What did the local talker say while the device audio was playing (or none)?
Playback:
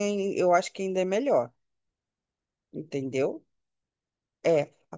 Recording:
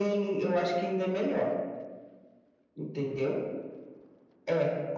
none